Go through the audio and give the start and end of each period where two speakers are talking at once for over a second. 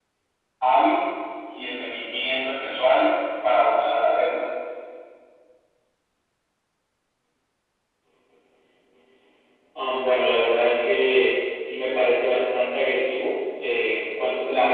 none

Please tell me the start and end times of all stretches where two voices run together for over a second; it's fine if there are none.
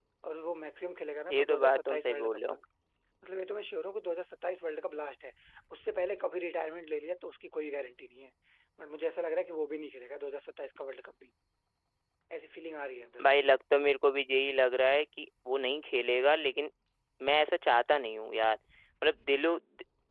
1.3-2.6

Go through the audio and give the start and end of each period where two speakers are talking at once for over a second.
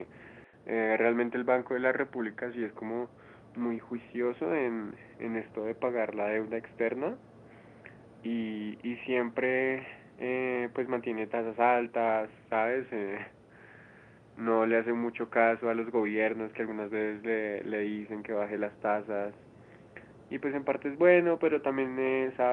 none

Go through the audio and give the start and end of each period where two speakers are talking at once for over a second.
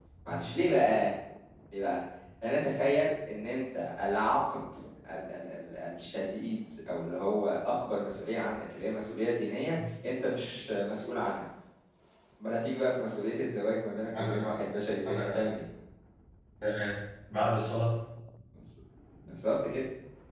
none

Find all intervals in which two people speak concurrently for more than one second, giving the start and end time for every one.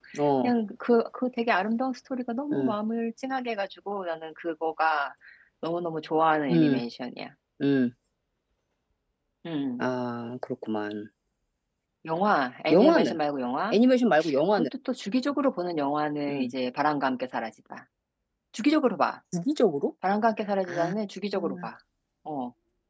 none

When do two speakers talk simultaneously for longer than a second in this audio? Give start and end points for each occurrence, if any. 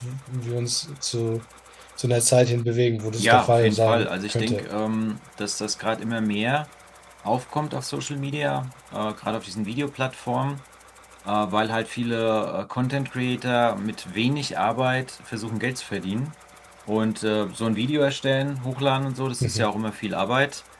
3.2-4.6

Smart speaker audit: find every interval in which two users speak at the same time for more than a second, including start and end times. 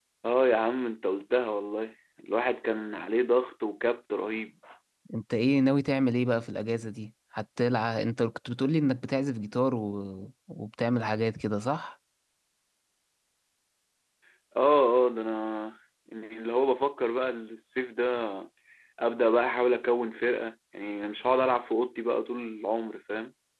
none

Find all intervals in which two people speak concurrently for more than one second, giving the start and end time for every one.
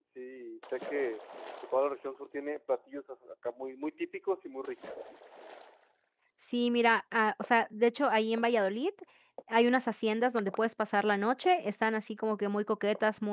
none

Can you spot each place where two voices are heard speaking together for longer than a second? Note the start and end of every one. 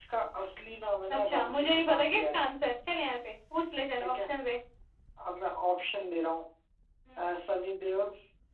1.1-2.4

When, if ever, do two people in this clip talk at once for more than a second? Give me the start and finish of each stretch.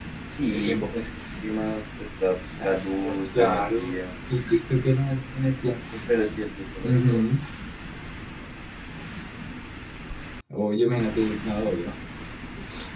2.6-4.0

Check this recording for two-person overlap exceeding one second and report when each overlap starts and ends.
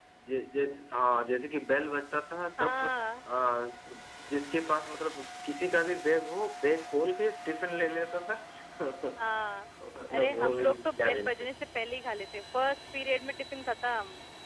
10.1-11.5

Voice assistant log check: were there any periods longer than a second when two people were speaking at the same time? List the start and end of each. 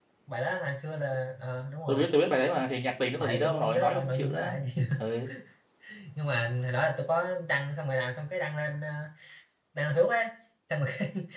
3.2-4.5

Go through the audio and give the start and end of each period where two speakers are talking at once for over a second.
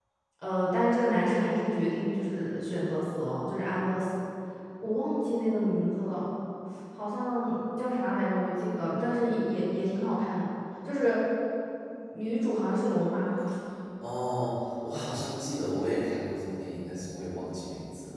none

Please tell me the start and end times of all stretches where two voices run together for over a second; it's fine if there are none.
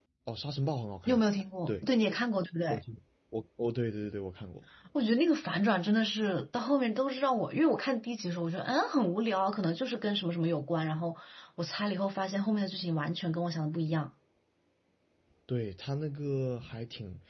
none

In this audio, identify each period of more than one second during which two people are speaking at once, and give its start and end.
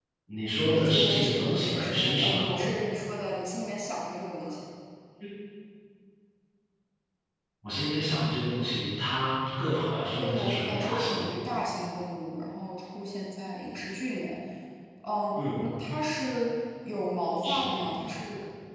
0.6-2.4, 10.2-11.4

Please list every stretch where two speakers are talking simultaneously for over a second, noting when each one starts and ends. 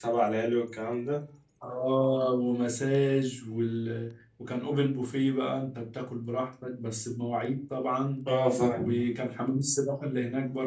none

